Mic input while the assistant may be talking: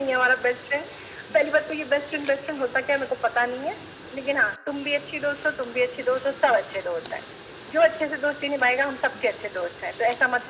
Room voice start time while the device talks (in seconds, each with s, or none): none